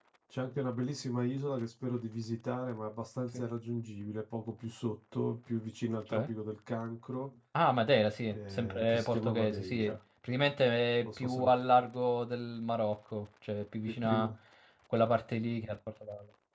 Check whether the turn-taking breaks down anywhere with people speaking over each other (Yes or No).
Yes